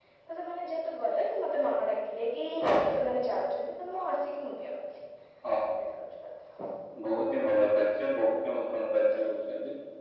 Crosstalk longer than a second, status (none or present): none